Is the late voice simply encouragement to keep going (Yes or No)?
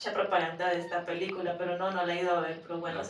No